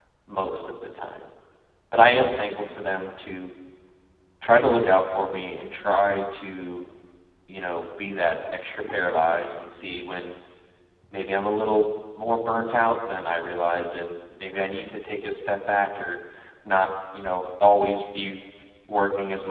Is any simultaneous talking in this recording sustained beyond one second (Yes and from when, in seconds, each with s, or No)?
No